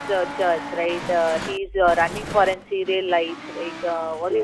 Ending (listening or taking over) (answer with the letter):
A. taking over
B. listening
B